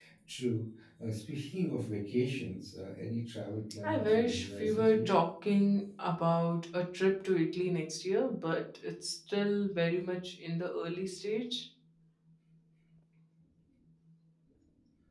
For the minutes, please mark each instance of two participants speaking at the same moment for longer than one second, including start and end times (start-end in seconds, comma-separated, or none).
3.8-5.1